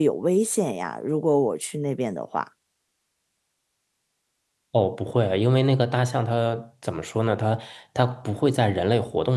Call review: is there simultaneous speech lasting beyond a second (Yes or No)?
No